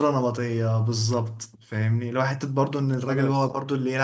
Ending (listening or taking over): listening